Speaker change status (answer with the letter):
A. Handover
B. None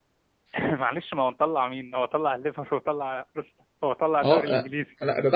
A